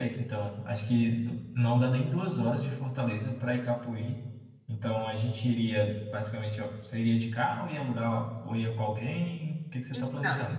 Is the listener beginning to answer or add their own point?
Yes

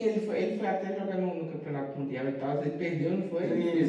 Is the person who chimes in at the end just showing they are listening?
No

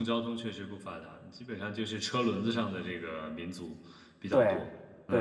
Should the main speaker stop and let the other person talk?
Yes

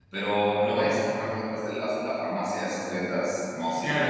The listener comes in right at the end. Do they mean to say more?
Yes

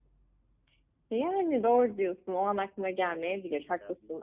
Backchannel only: Yes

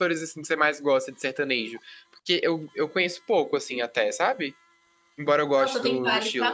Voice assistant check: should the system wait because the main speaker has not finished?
No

